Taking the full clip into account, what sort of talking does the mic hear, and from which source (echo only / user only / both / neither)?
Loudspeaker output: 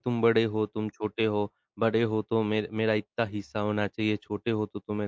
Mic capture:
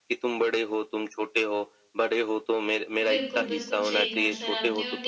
both